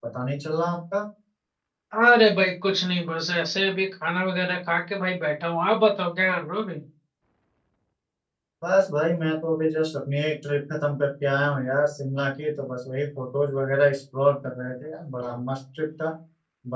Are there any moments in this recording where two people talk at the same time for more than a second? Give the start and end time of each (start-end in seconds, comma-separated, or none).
none